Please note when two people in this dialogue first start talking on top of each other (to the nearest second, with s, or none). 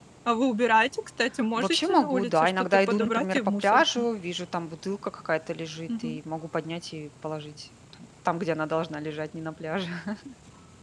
2 s